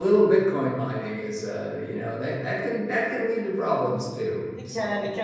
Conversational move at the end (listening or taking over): taking over